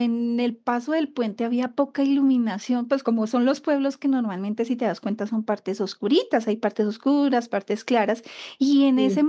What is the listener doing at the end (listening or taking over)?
listening